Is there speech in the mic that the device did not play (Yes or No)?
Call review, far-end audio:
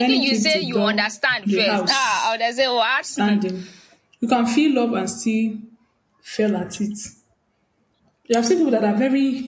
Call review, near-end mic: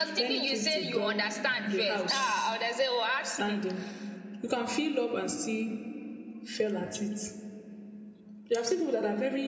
No